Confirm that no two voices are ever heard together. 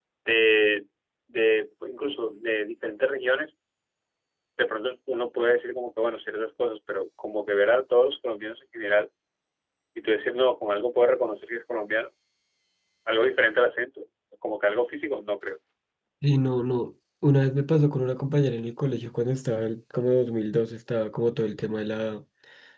Yes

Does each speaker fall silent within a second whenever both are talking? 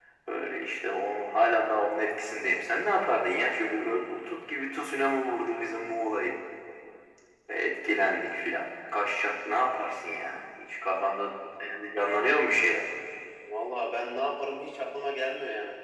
Yes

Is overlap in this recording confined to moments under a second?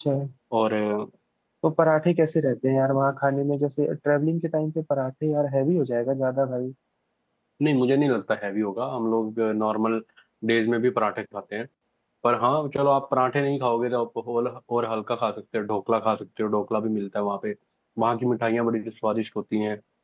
Yes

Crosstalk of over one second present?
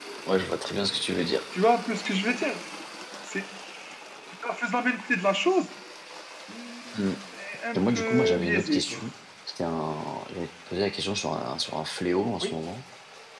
Yes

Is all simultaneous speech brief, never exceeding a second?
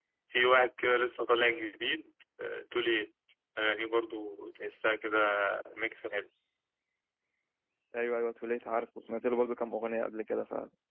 Yes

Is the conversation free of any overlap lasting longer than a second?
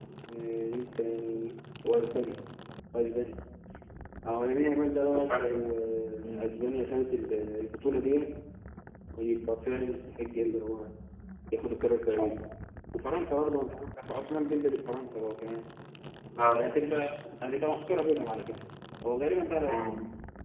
Yes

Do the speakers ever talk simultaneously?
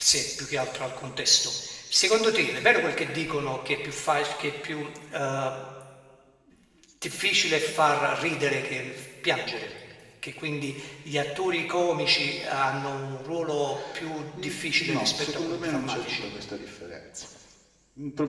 Yes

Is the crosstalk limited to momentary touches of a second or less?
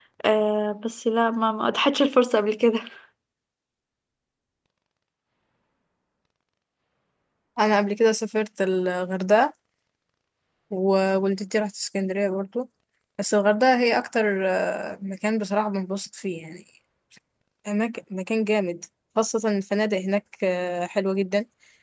Yes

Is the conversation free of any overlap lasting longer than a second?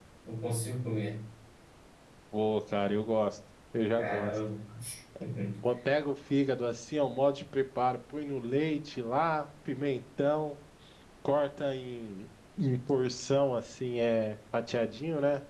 Yes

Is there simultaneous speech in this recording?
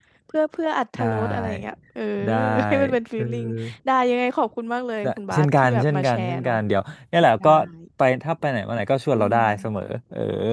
Yes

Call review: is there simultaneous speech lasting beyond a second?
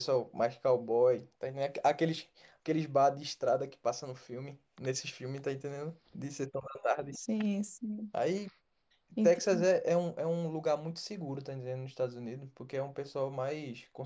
No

